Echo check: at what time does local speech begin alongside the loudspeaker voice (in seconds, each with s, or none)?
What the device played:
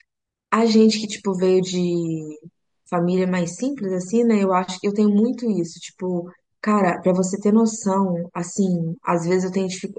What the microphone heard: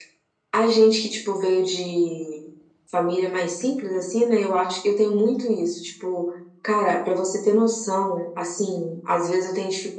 none